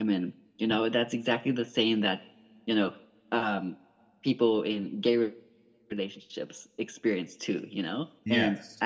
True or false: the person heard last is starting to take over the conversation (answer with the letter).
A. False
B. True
A